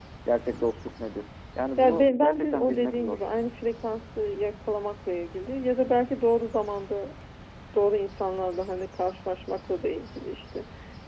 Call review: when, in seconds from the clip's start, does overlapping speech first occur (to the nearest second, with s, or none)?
2 s